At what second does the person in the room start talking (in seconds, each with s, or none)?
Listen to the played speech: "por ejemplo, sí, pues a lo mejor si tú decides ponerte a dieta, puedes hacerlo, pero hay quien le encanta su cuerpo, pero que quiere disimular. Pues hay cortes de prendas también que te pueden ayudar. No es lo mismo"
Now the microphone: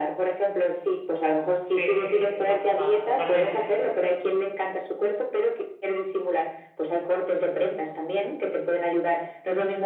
1.7 s